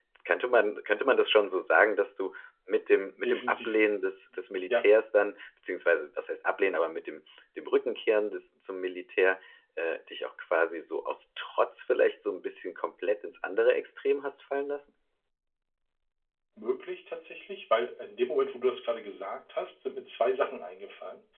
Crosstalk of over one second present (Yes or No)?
No